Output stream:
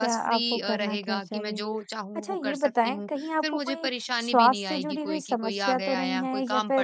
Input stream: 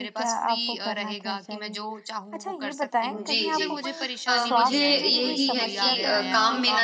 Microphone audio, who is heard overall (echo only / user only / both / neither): both